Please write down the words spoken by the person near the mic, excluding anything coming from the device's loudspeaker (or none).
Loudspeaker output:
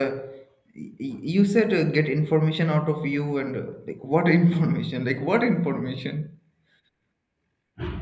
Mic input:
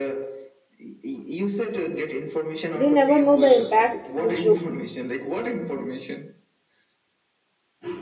but you never know the impact this joke